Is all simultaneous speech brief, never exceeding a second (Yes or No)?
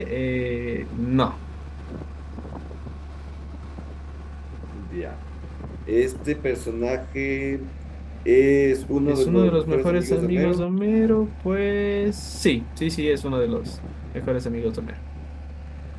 No